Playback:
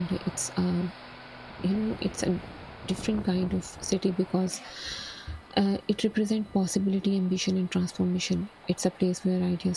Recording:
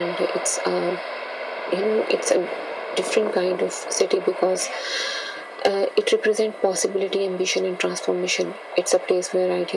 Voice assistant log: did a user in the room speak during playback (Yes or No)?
No